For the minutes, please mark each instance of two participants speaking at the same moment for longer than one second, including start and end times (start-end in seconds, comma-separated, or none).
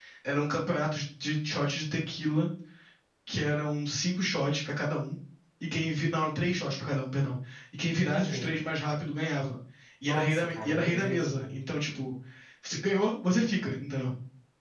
10.1-11.6